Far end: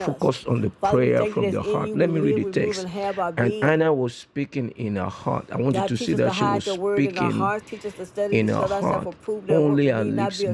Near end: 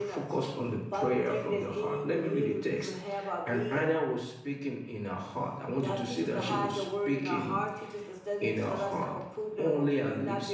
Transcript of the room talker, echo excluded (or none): none